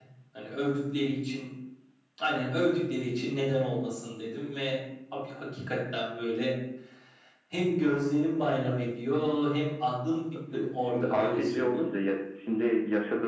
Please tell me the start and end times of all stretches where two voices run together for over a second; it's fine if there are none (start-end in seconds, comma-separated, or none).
10.5-11.8